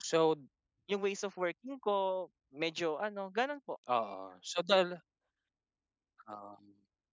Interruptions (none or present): none